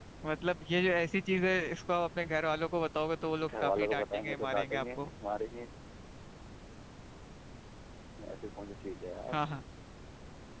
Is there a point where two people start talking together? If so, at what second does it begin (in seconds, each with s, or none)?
3.4 s